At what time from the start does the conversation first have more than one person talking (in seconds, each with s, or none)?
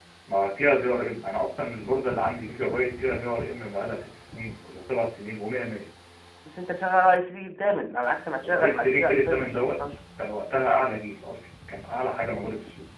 8.4 s